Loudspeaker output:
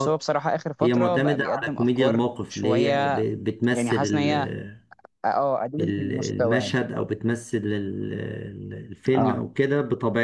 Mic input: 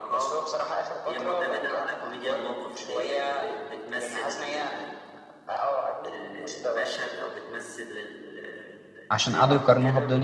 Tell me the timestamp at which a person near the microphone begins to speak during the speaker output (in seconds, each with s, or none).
9.1 s